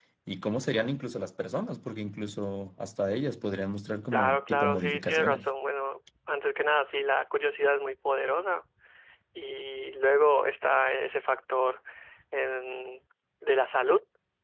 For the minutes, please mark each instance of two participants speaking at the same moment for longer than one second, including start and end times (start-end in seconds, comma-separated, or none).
4.1-5.5